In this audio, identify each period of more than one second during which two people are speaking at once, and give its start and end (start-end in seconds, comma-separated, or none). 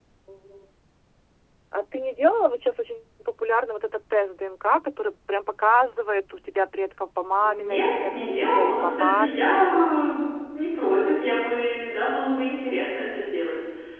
7.4-9.6